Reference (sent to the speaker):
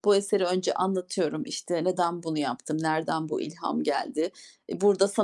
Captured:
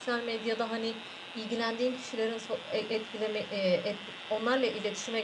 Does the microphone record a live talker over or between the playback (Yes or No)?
Yes